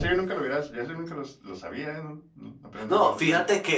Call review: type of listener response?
taking over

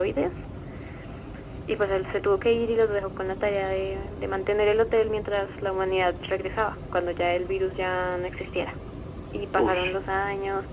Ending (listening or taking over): listening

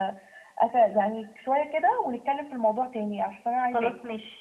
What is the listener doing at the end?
taking over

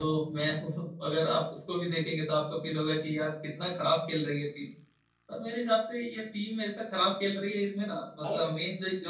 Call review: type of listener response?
listening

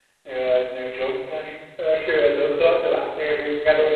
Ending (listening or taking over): listening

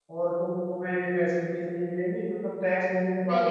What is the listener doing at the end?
taking over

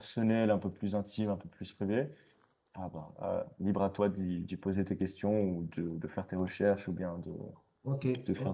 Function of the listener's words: taking over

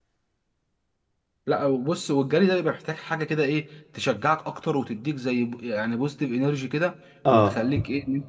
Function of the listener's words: listening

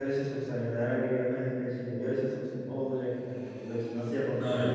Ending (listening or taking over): taking over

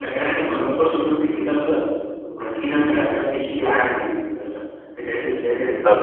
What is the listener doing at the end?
listening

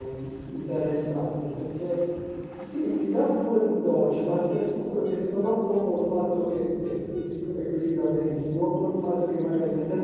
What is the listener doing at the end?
listening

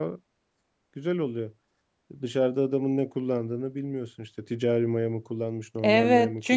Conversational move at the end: taking over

